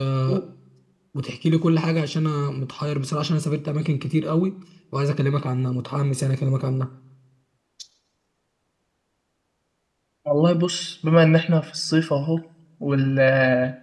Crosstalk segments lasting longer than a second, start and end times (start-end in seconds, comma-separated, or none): none